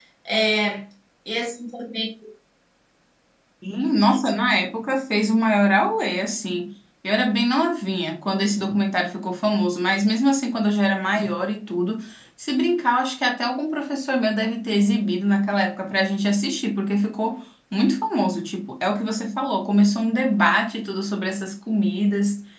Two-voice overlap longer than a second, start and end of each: none

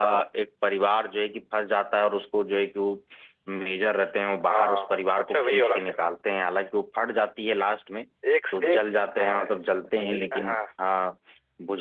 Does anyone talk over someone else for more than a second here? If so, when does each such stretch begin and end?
4.5-6.1

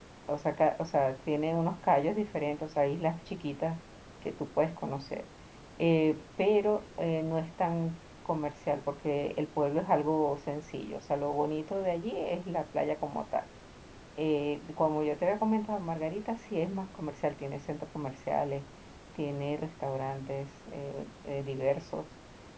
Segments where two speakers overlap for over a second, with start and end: none

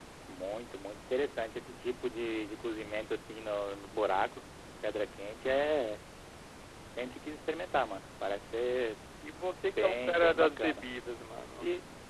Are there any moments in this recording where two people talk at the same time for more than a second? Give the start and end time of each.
9.6-10.9

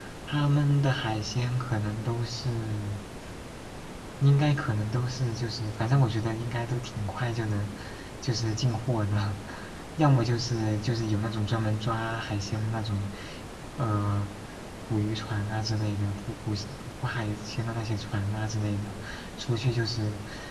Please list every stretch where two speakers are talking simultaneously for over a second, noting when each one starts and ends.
none

